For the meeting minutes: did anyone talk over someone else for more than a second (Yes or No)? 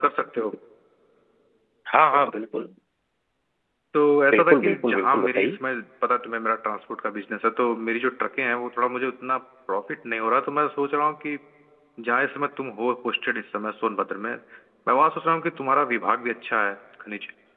Yes